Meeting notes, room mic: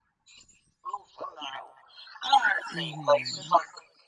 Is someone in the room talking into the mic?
Yes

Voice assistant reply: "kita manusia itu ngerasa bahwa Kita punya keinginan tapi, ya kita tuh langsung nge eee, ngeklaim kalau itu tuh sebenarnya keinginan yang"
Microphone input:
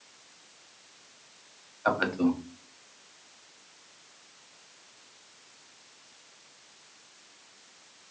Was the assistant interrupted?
Yes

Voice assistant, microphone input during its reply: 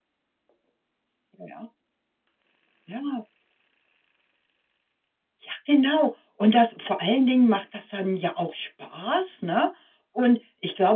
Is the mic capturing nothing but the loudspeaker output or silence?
Yes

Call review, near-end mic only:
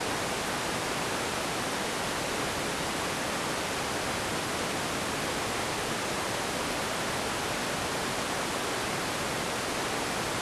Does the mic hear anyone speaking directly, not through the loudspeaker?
No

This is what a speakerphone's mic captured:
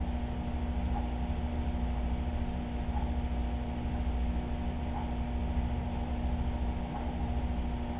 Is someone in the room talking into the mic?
No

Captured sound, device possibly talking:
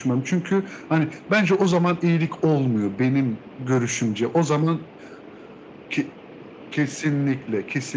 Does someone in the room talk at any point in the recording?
No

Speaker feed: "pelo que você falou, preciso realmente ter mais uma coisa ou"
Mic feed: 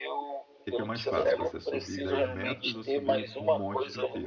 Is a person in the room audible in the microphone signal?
Yes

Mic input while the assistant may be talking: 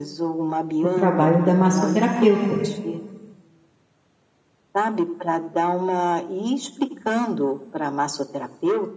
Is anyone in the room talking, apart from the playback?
Yes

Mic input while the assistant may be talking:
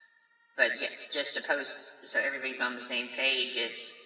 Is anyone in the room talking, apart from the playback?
Yes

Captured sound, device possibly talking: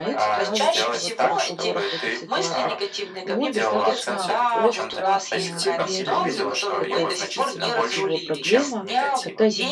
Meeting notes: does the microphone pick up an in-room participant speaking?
Yes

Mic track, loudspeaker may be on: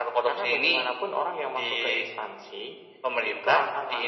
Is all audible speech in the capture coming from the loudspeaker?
Yes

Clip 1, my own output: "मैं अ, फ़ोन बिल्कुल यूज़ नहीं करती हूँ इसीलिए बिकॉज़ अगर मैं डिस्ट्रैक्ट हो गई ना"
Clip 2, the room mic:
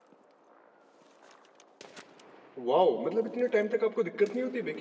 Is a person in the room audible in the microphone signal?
Yes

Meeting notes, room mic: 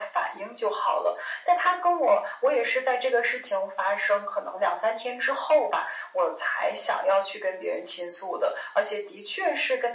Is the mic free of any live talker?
Yes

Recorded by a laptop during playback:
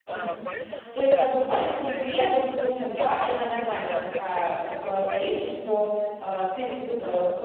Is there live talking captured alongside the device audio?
Yes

